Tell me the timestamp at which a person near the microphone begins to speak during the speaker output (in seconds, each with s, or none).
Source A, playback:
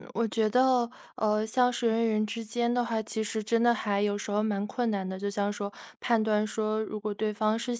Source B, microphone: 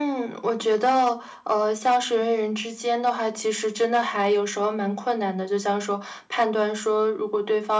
none